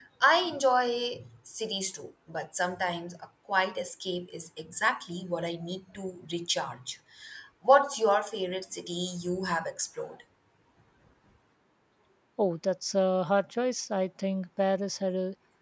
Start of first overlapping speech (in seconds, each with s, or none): none